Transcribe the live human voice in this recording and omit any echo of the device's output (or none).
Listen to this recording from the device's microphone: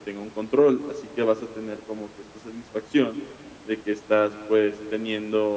none